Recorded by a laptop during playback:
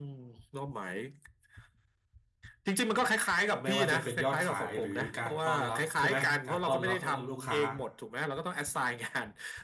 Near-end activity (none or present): present